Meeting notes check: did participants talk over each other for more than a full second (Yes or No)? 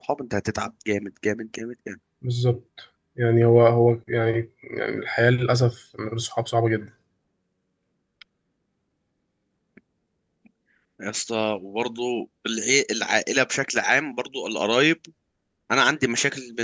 No